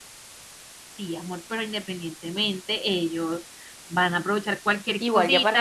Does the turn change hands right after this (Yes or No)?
Yes